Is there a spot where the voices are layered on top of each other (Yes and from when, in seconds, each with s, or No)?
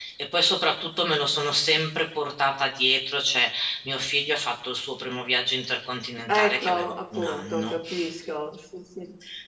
Yes, from 6.3 s